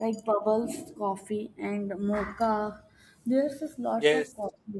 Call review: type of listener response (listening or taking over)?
listening